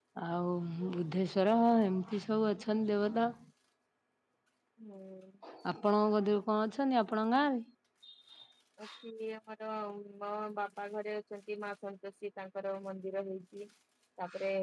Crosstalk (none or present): none